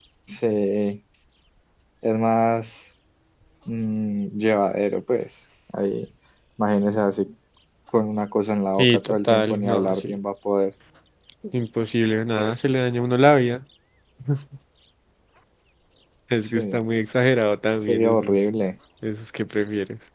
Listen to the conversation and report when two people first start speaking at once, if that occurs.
9 s

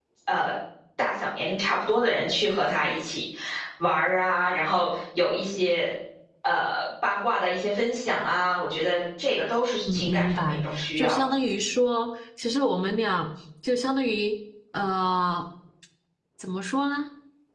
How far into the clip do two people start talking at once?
10 s

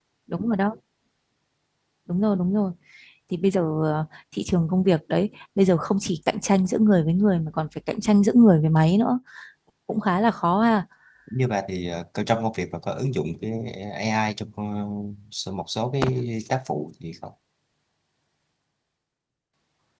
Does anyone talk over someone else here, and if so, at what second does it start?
none

